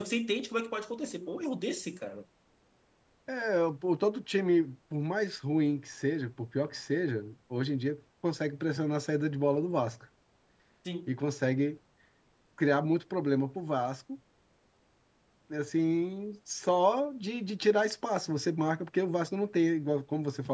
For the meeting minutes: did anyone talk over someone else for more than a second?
No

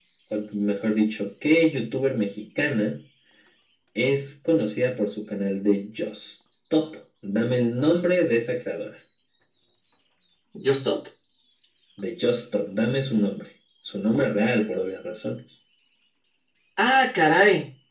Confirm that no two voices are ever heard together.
Yes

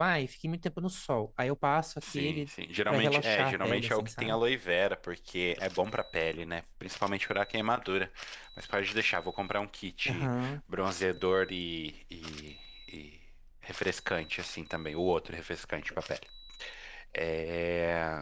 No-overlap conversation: No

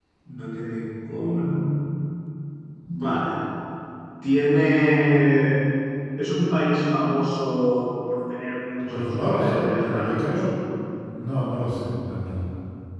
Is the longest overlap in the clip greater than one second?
Yes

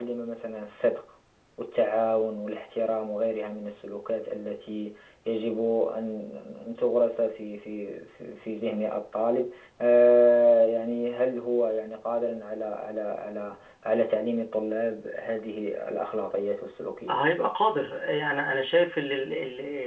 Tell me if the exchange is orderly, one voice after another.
Yes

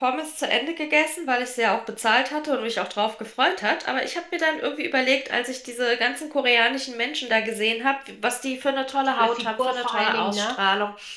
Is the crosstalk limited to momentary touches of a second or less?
No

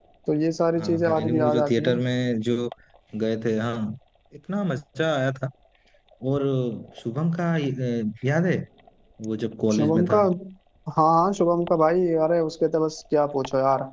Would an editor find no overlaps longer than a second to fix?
No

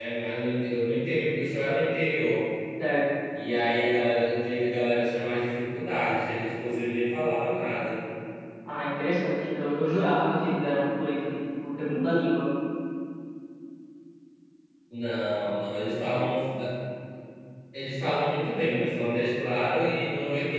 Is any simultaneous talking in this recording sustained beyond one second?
No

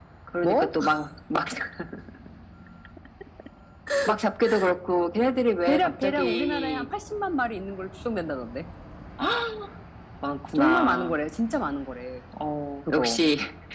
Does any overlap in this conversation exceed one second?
Yes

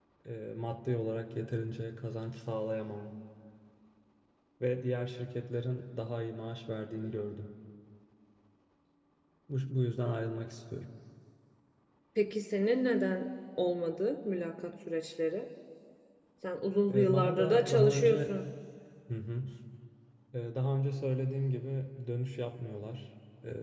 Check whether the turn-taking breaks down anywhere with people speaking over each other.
Yes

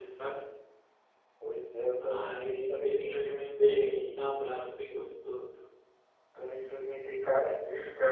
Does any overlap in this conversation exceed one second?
Yes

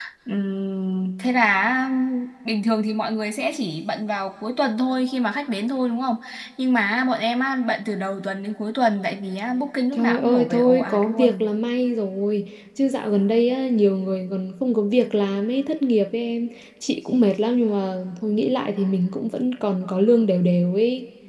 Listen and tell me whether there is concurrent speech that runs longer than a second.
Yes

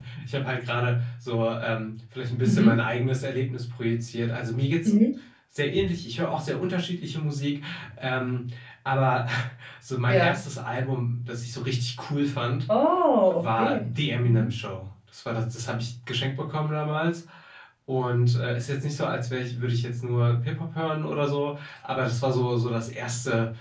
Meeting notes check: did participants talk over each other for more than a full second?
No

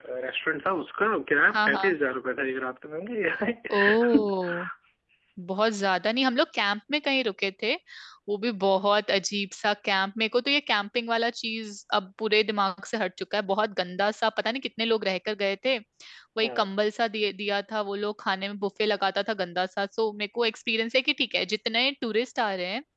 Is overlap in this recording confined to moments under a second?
Yes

